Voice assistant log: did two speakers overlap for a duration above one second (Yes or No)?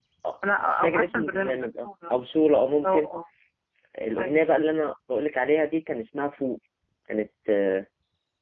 Yes